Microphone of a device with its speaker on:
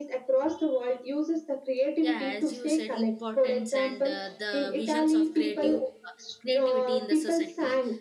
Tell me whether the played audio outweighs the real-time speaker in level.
Yes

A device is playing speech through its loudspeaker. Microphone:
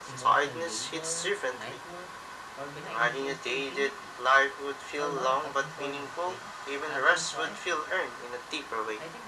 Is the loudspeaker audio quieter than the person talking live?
No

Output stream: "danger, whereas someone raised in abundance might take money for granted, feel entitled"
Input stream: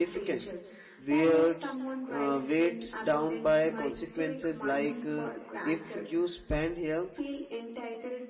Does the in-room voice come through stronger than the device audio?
Yes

